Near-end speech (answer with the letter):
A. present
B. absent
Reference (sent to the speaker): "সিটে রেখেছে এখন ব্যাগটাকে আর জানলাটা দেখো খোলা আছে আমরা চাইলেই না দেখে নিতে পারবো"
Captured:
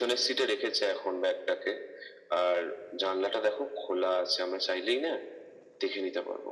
B